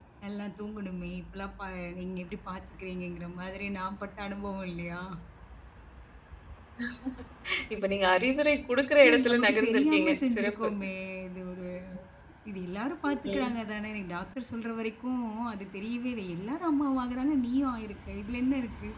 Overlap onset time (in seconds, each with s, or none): 9.0 s